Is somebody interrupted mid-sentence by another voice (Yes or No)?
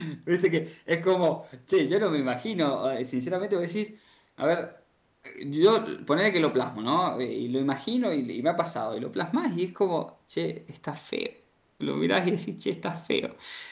No